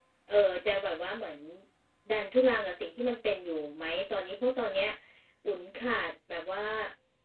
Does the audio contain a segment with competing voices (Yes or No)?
No